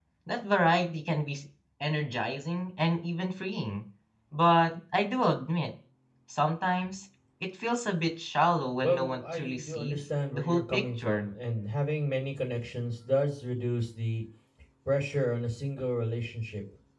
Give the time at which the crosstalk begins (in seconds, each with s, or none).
8.8 s